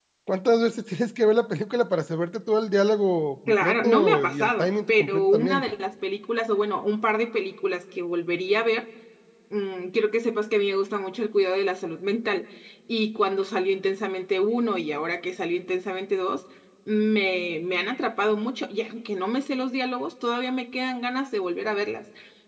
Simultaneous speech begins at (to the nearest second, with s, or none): 3 s